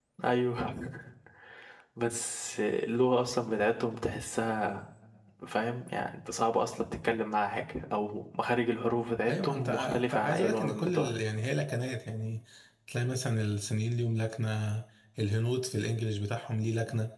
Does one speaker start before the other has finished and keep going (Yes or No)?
Yes